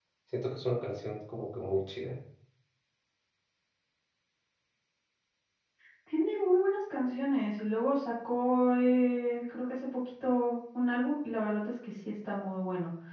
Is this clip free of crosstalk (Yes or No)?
Yes